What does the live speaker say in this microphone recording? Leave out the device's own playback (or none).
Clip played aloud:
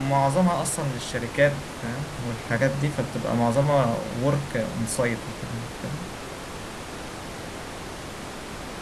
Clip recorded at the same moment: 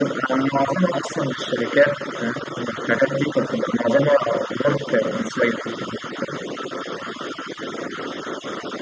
none